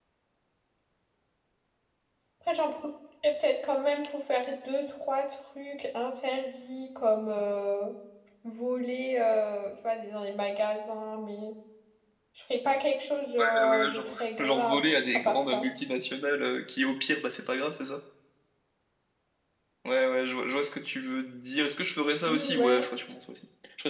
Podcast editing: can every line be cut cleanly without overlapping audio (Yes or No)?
No